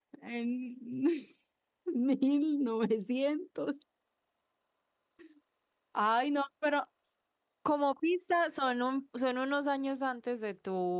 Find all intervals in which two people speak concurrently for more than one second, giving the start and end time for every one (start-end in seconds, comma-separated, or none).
none